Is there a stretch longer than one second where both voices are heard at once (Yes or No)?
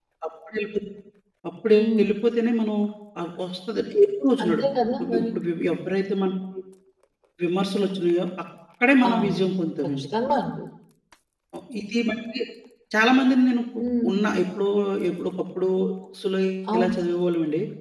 No